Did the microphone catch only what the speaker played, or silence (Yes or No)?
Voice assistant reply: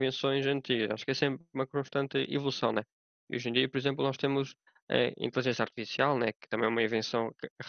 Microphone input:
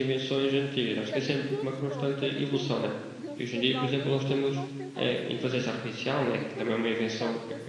No